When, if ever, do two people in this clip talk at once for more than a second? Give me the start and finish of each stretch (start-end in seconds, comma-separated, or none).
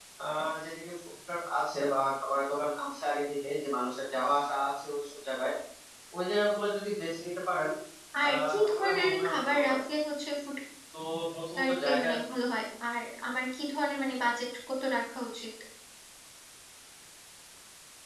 8.3-9.8